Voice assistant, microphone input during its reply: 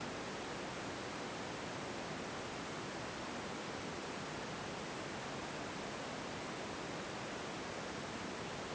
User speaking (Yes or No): No